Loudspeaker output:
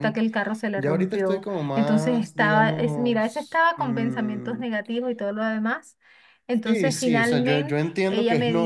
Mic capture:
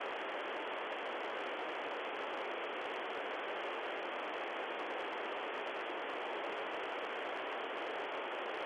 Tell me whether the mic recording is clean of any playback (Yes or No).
Yes